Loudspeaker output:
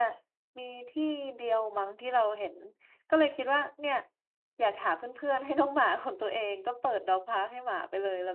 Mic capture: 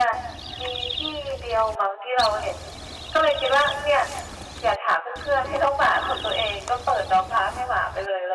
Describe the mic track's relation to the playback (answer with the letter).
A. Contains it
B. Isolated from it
A